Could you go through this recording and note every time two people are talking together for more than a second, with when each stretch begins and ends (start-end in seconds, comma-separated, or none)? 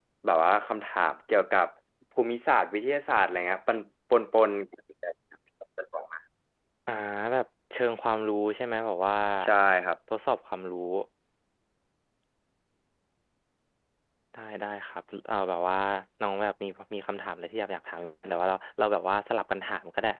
none